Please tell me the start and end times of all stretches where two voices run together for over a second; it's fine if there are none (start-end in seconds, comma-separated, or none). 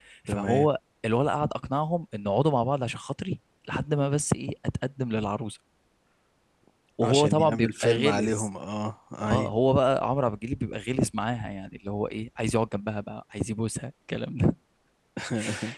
7.0-8.5